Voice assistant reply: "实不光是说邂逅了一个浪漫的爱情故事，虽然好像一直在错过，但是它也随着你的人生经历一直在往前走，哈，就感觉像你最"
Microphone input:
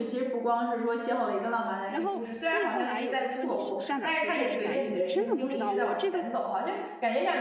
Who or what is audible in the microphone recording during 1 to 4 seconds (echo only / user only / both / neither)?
both